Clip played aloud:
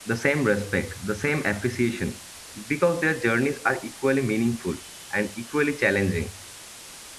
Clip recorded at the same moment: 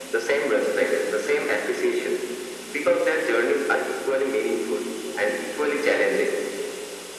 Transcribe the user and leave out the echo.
none

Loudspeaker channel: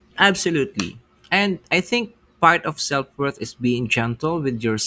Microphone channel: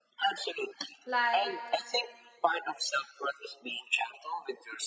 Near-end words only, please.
Like,

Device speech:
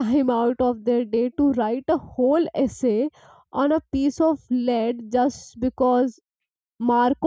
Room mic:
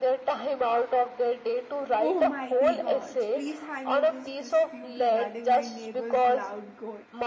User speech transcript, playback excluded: Oh mighty gods, please handle this dispute regarding my neighbor's loud goat.

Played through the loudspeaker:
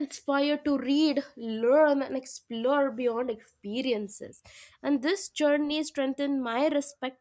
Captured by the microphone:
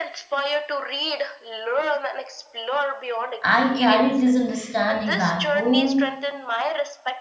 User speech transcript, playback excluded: i carried this understanding back home

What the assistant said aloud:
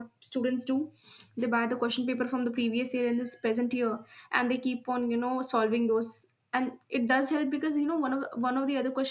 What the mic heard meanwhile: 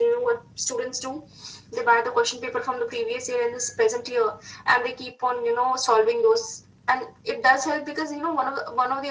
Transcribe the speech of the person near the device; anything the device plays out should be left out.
none

